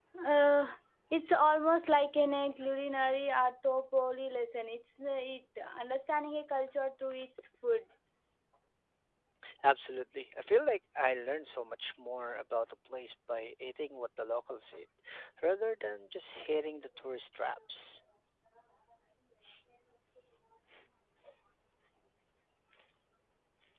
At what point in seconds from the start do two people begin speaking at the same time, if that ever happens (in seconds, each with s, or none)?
none